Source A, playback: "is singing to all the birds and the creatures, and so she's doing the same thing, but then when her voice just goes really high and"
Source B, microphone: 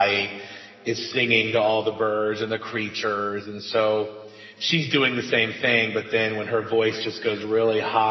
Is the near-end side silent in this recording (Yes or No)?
Yes